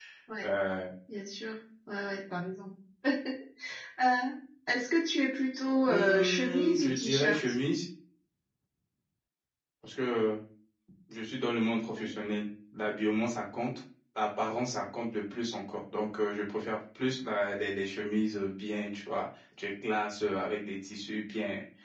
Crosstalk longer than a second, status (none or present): present